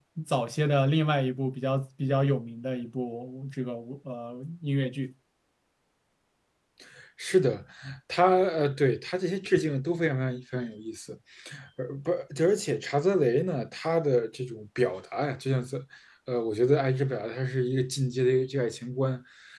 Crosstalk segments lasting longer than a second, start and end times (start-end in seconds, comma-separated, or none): none